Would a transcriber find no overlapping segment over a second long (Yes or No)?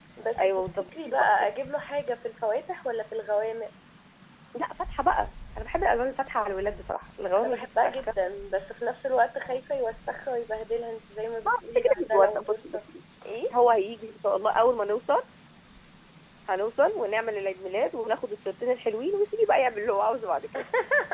No